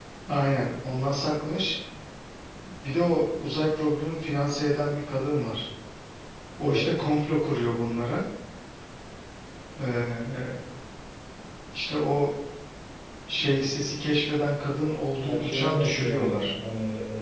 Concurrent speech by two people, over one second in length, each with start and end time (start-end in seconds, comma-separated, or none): 15.2-16.5